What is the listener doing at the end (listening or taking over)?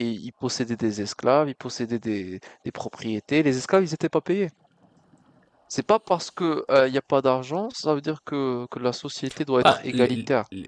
taking over